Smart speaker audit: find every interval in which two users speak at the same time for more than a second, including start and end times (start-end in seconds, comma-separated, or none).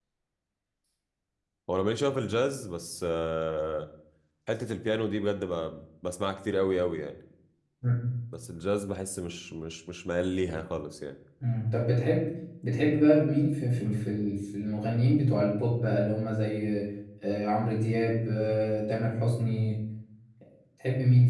none